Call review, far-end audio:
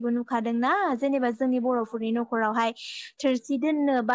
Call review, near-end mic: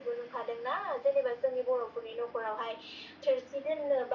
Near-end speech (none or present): none